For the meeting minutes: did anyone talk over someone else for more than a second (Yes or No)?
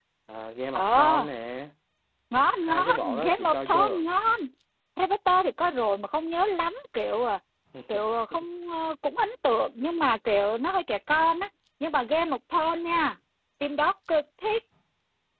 Yes